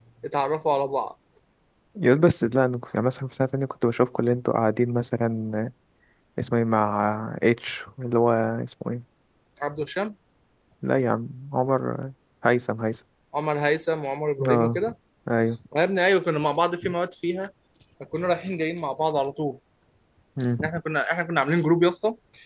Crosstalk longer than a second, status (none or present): none